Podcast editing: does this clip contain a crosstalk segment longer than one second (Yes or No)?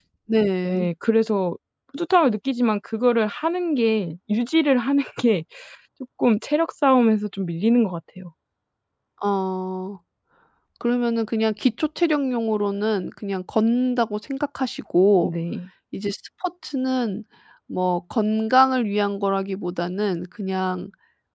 No